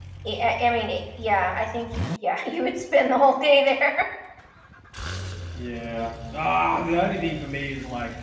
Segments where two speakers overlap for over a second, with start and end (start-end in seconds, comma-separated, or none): none